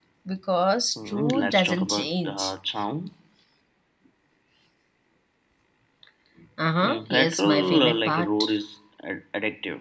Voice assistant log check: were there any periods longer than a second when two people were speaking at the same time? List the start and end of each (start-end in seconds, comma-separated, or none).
1.0-2.5, 6.8-8.6